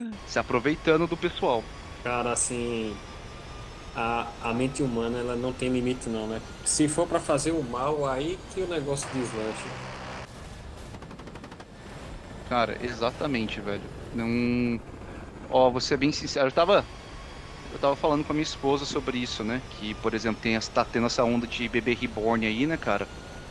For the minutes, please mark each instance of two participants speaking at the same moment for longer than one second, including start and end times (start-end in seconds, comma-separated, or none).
none